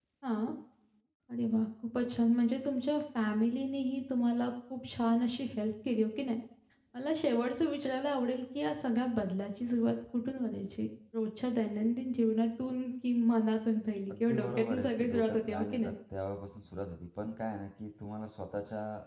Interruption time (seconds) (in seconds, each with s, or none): 14.1 s